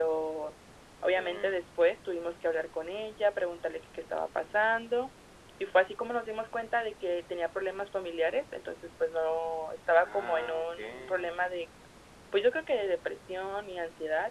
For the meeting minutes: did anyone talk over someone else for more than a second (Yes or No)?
Yes